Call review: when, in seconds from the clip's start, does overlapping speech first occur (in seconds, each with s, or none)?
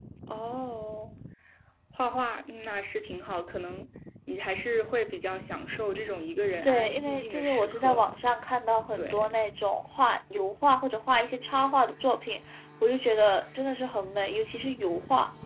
6.6 s